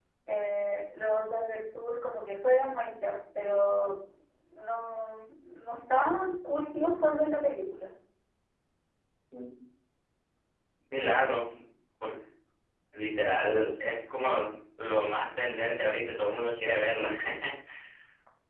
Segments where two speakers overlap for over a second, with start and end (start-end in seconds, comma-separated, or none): none